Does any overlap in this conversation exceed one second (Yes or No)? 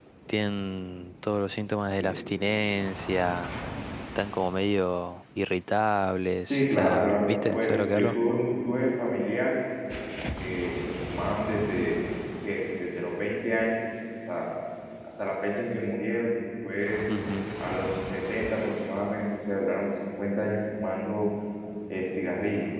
Yes